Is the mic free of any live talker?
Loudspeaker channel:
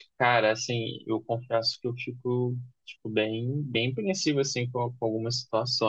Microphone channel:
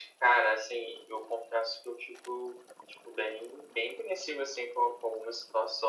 Yes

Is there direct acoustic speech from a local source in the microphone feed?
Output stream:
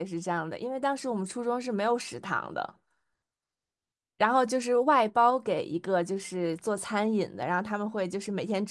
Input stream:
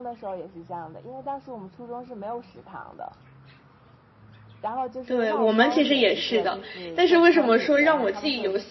Yes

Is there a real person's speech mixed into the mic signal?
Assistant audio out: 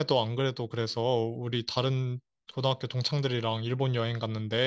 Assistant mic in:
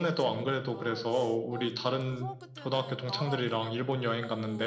Yes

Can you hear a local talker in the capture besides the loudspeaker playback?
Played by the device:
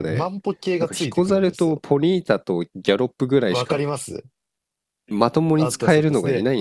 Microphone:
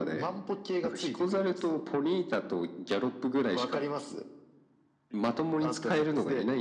No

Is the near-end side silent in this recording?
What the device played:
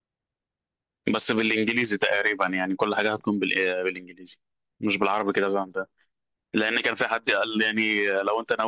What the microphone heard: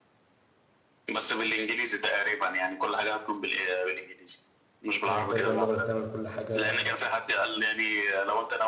No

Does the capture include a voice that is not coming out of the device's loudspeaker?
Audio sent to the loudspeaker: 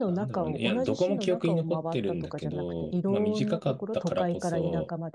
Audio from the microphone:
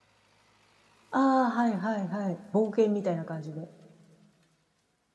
Yes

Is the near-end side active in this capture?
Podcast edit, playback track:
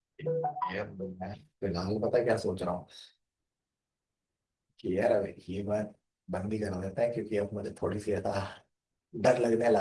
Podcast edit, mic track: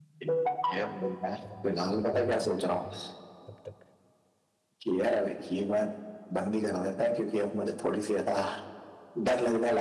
Yes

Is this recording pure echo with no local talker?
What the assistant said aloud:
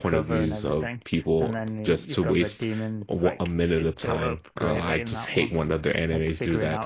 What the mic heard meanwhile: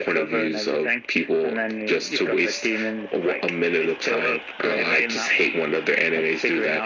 Yes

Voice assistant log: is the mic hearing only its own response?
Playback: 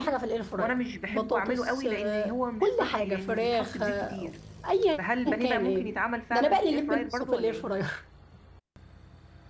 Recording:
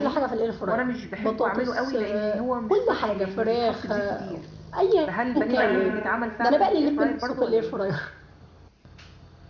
No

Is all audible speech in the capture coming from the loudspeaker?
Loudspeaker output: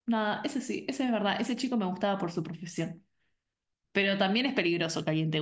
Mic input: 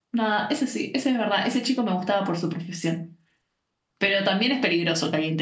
Yes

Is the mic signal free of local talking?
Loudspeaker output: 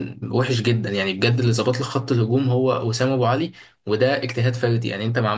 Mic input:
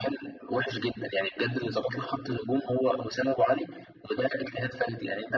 Yes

